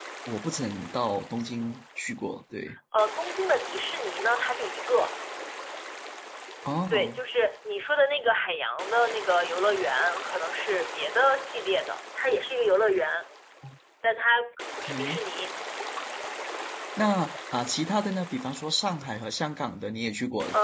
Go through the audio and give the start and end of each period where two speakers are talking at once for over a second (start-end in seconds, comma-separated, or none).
none